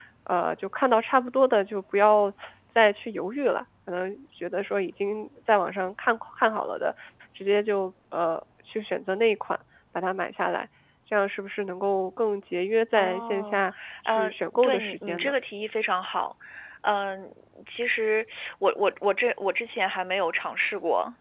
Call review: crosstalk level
present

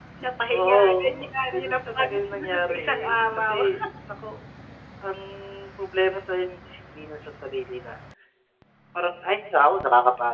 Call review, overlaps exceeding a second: present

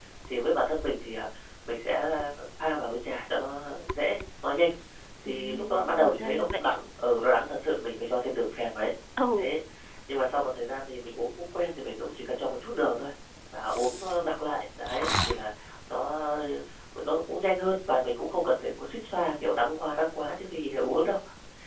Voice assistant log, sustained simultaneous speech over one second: present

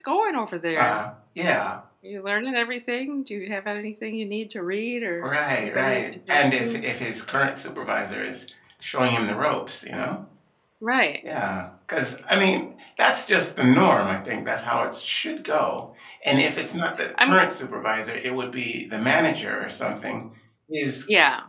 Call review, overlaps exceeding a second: present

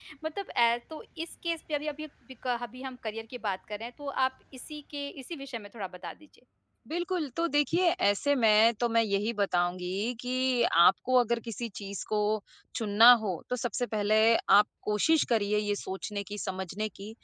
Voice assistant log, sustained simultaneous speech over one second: none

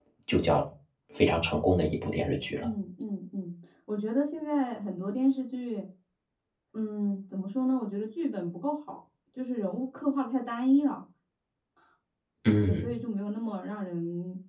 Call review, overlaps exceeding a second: none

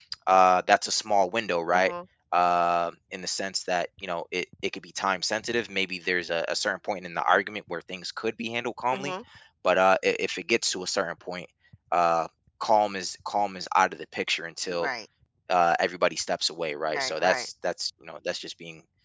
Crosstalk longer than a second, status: none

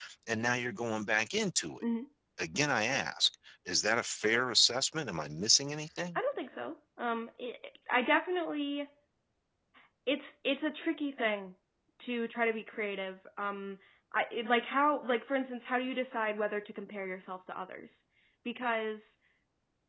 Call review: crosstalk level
none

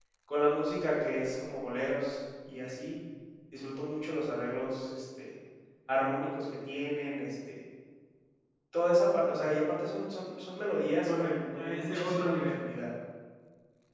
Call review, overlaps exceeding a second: present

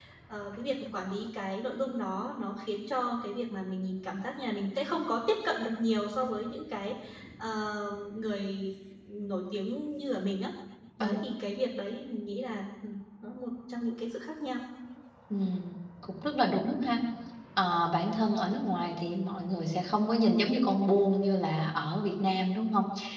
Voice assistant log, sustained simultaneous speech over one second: none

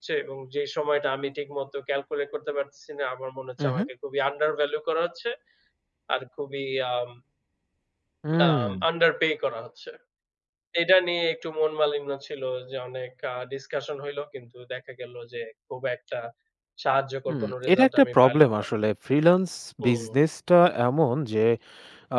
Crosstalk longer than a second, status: present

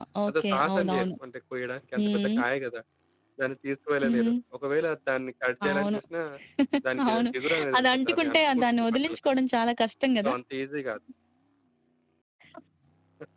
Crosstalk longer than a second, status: present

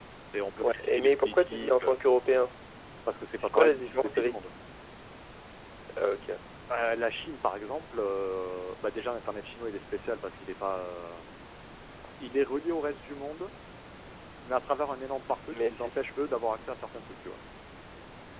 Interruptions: present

